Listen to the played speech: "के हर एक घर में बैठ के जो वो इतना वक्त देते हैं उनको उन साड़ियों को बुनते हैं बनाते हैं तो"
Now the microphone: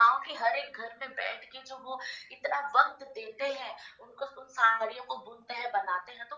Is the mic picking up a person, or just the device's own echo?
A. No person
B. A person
A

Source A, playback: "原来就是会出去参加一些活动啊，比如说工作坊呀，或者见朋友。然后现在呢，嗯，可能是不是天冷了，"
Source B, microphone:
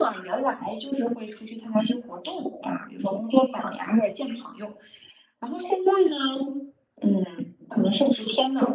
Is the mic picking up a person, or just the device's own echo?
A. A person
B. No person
B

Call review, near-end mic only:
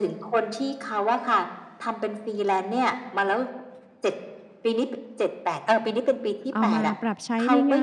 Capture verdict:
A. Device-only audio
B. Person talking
B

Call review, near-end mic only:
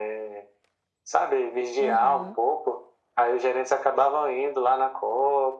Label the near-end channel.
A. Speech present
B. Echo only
A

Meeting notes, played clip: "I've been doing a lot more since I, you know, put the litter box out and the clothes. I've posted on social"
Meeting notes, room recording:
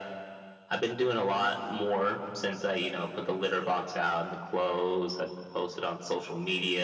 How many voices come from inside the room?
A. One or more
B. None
B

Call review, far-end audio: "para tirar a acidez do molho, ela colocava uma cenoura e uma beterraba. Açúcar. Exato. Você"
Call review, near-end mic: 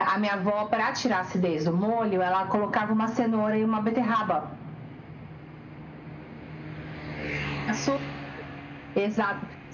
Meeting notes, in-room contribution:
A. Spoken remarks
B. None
B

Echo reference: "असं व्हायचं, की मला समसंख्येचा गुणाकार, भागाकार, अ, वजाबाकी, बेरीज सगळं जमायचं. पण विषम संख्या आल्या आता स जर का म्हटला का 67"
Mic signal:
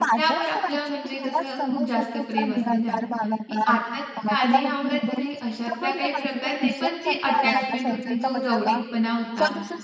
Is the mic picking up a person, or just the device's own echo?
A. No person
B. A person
B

